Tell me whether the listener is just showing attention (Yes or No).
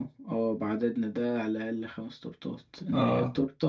Yes